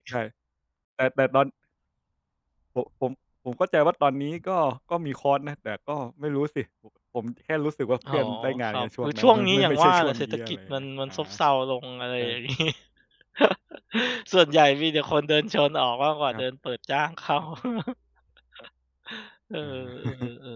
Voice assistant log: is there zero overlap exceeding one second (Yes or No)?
No